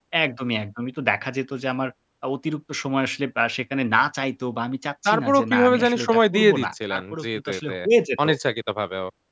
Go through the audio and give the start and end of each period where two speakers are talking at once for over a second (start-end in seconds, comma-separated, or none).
5.1-7.7